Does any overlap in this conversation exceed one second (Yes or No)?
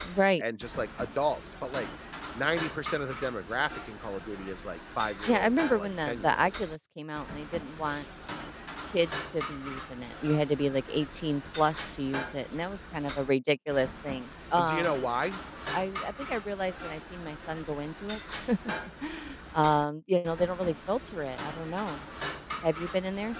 Yes